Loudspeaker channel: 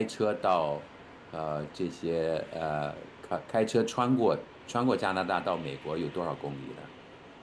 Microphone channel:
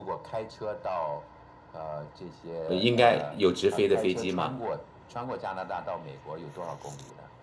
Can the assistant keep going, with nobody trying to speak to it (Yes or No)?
No